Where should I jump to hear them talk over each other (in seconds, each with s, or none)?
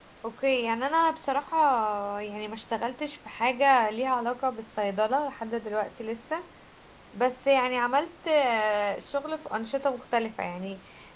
none